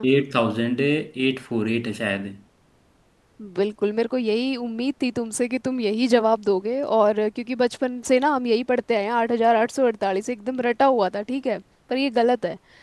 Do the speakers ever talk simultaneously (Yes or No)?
No